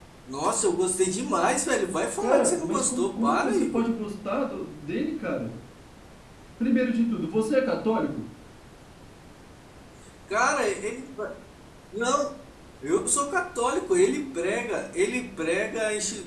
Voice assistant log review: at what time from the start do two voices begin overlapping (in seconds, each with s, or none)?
2.2 s